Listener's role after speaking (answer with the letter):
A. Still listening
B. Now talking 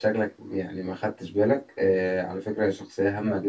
A